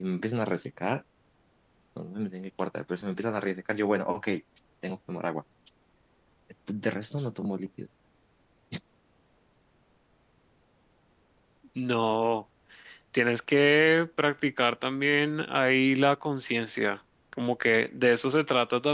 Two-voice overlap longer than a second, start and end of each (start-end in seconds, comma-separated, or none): none